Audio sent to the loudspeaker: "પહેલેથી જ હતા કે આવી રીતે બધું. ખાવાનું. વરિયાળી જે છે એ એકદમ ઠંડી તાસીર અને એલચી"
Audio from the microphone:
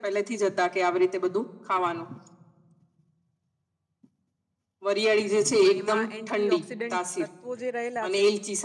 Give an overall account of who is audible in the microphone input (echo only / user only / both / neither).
both